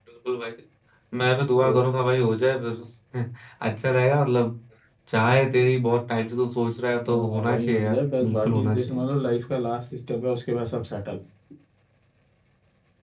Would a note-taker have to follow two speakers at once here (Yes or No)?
Yes